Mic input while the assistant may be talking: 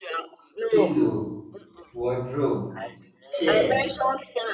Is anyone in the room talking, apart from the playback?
Yes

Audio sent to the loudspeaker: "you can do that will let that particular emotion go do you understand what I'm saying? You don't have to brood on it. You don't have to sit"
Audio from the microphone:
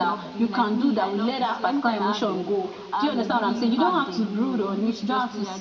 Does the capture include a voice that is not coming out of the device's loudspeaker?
Yes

